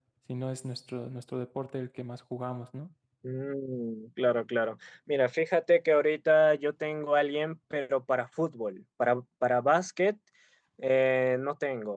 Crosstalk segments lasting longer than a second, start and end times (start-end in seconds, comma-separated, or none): none